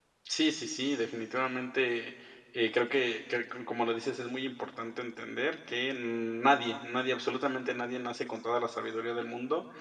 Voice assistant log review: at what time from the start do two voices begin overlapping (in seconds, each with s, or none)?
none